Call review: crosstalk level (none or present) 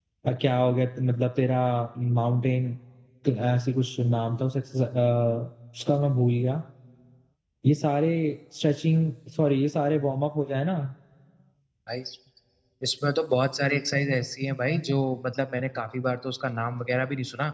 none